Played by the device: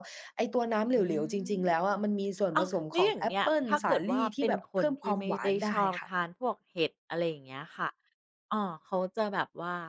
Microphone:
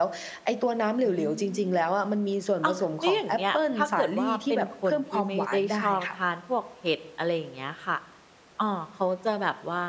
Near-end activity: none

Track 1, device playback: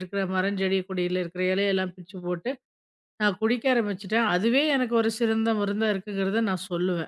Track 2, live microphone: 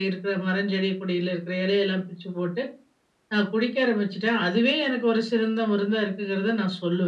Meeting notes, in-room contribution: none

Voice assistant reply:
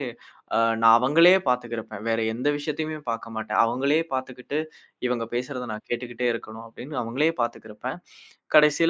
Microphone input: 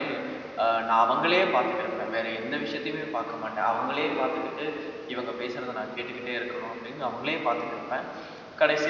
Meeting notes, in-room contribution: none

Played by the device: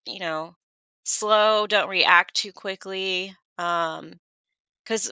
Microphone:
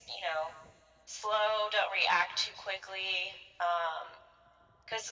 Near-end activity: none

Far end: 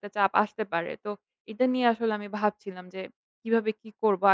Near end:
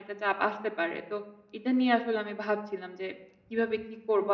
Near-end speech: none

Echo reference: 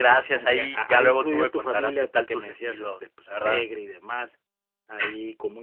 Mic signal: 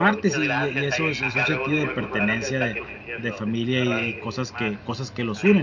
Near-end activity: present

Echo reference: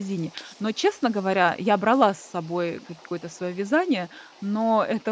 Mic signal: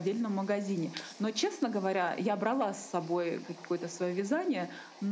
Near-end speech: none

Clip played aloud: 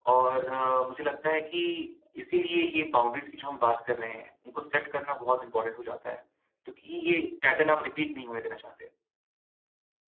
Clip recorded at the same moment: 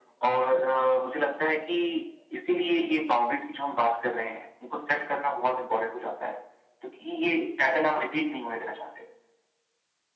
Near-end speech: none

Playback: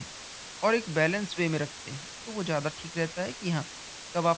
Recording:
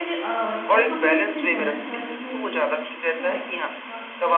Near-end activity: present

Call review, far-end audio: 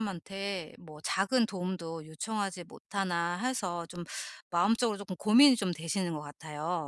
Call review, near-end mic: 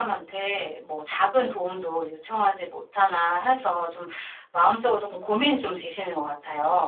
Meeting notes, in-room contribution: none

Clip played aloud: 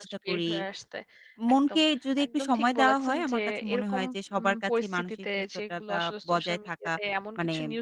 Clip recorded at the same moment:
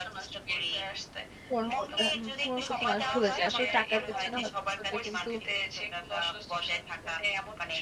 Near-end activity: present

